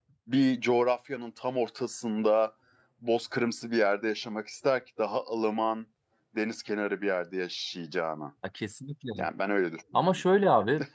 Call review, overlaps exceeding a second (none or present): none